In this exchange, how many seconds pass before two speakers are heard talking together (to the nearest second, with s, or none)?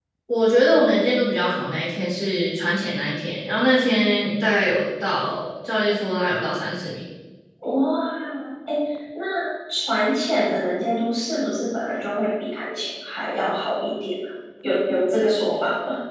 none